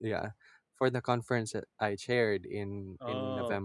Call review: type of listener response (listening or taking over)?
listening